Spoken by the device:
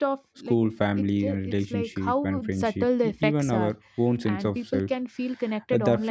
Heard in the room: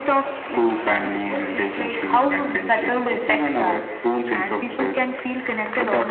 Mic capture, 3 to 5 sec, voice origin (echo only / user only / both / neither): echo only